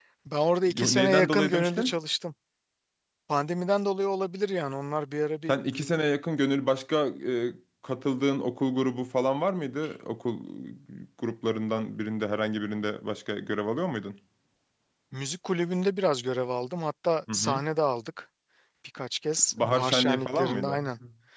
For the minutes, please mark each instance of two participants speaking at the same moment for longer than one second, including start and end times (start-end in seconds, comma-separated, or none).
0.7-1.9, 19.5-20.8